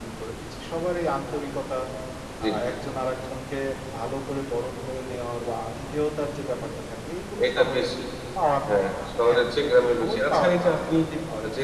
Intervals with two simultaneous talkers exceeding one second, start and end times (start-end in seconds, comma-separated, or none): 8.7-11.0